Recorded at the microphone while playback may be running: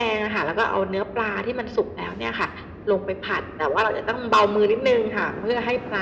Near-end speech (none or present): none